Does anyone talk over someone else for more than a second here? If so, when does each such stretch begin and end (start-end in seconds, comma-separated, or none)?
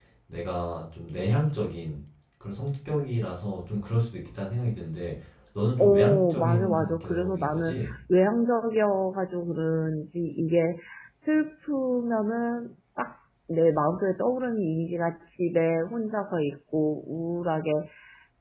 5.8-8.0